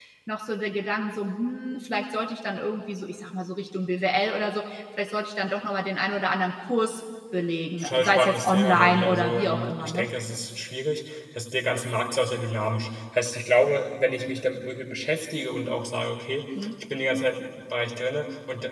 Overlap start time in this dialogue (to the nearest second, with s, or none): 8 s